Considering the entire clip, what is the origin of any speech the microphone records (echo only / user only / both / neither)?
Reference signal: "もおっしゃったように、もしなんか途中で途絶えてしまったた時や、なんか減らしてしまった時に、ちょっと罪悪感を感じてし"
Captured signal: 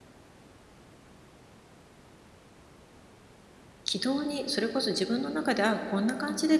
user only